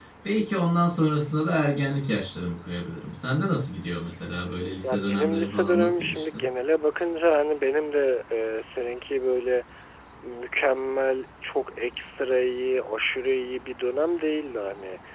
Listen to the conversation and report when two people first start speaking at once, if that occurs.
4.8 s

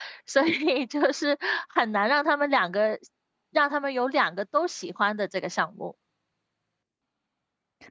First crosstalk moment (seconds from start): none

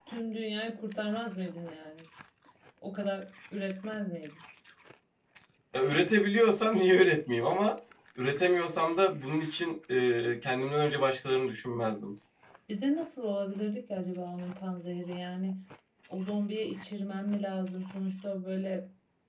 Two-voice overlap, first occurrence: none

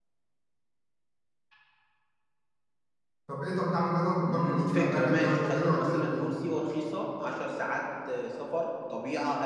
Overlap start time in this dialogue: 4.2 s

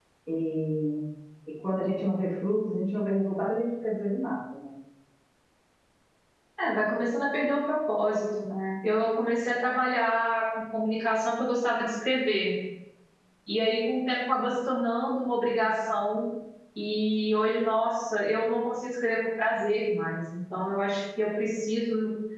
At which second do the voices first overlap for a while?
none

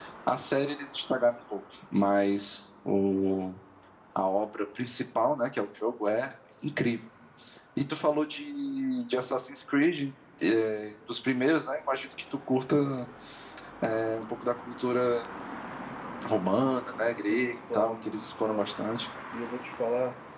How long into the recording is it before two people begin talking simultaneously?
17.3 s

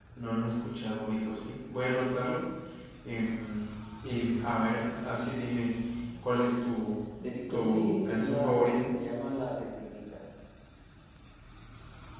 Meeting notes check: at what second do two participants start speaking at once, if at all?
7.5 s

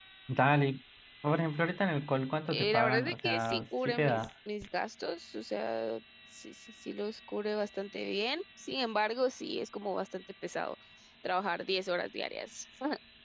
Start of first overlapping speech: 2.5 s

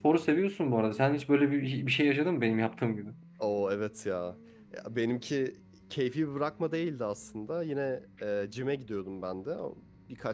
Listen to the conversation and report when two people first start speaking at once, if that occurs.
none

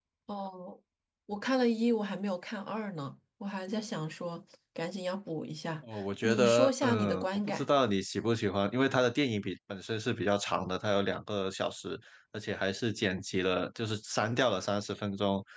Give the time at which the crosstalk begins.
5.8 s

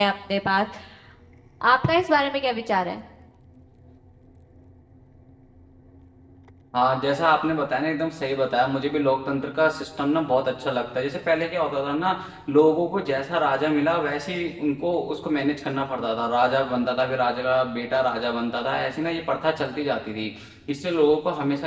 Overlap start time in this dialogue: none

